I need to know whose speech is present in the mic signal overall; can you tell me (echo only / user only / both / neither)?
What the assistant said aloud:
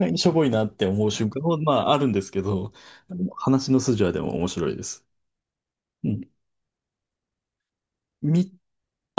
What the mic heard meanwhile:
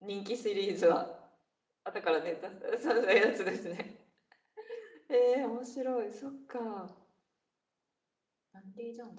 user only